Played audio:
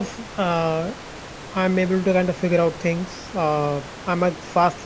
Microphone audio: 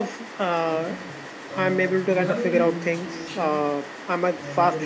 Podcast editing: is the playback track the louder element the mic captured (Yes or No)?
Yes